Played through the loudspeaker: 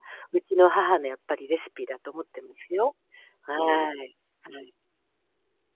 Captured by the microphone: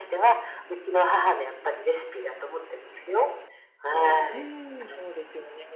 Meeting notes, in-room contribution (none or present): present